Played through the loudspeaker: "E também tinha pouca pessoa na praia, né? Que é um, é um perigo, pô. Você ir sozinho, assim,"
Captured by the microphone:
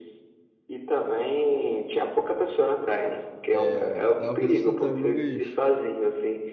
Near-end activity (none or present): present